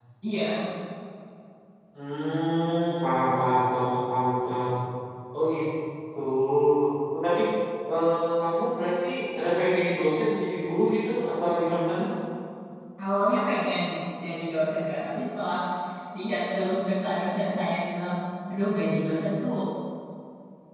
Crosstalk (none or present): none